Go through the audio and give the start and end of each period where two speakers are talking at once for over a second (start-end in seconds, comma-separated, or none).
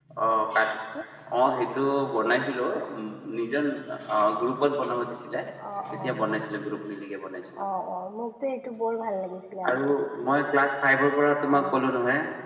none